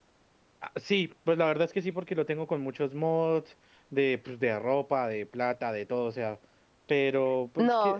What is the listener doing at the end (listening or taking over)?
taking over